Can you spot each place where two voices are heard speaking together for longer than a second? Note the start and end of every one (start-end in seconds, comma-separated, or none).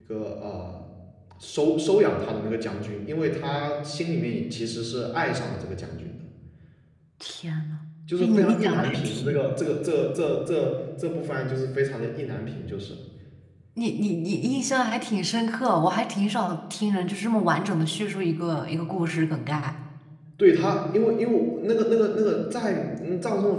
8.2-9.6